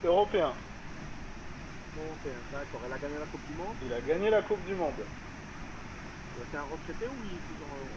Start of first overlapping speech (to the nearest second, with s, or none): none